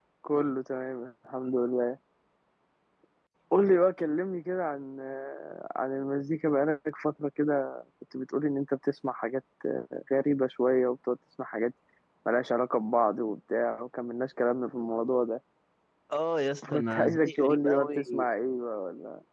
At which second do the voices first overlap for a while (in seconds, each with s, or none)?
16.7 s